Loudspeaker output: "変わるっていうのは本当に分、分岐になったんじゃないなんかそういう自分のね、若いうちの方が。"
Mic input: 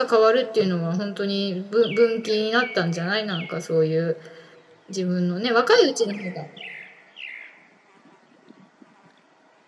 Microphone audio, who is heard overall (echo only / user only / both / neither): echo only